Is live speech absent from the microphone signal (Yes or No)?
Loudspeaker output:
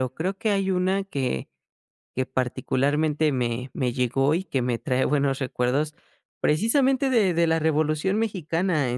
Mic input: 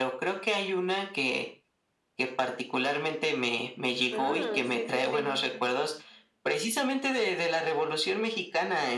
No